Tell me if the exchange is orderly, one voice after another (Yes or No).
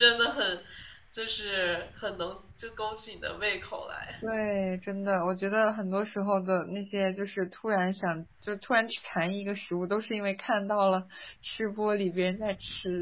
Yes